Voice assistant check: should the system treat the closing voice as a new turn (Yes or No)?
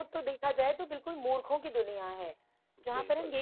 No